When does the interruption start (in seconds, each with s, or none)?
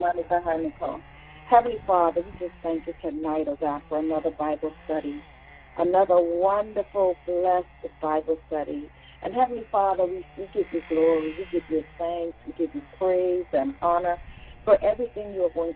none